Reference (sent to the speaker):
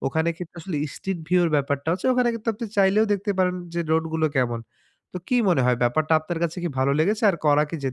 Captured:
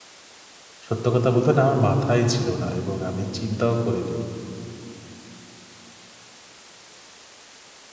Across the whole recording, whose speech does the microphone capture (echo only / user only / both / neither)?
user only